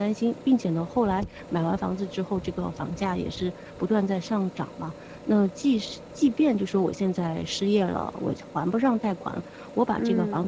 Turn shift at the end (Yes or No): No